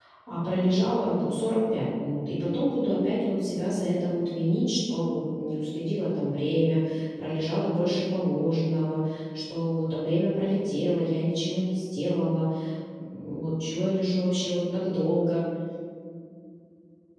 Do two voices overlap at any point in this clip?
No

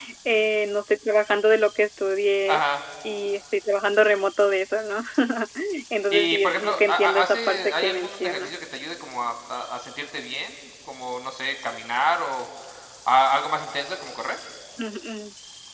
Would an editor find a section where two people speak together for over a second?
Yes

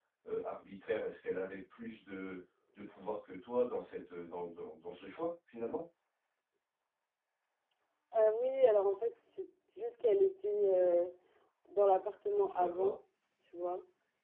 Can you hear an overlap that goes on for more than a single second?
No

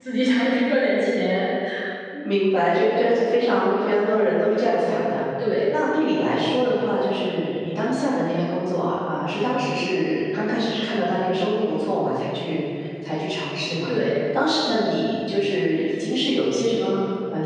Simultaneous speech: No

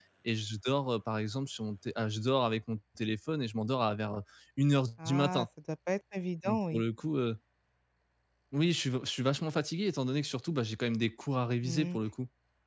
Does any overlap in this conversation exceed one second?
No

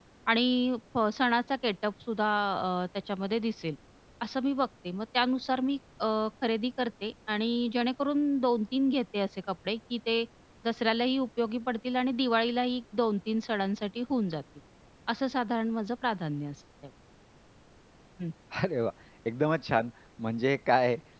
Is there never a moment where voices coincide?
Yes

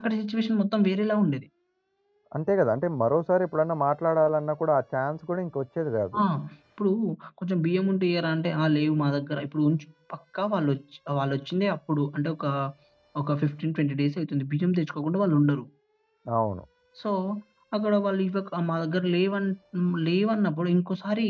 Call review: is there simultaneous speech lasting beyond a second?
No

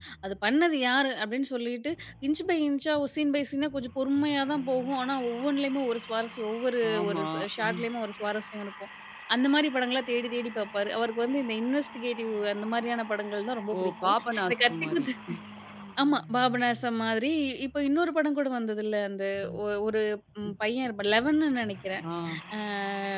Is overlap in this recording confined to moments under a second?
No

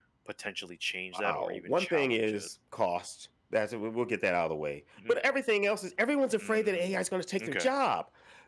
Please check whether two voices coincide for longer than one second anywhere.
Yes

